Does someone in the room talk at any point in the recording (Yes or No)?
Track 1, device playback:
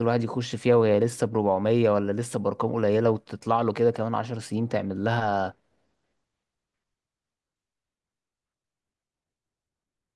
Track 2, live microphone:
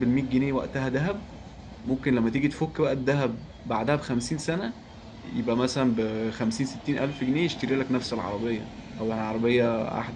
Yes